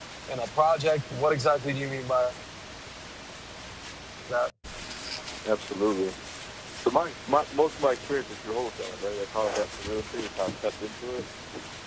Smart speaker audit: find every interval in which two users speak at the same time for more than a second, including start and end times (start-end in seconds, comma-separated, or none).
none